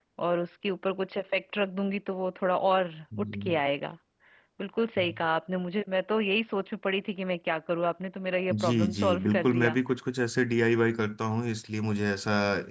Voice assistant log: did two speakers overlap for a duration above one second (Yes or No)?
Yes